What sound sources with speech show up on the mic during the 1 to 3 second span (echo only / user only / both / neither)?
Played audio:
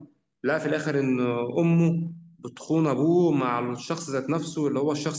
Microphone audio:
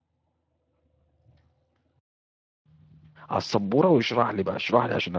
neither